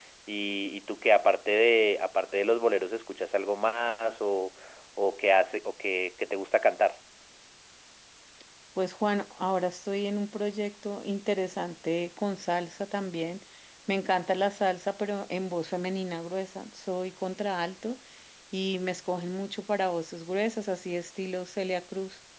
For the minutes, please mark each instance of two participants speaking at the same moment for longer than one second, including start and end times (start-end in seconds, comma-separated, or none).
none